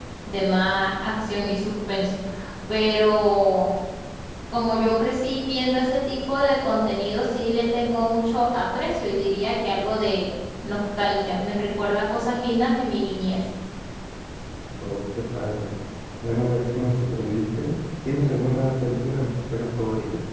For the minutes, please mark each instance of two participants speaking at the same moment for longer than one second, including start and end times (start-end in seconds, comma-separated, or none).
none